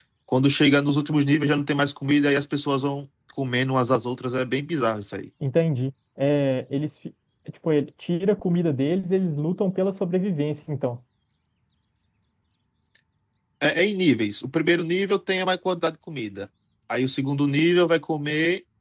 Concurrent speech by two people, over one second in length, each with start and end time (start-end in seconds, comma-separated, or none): none